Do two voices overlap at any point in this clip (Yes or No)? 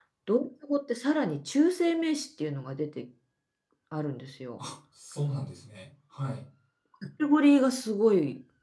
No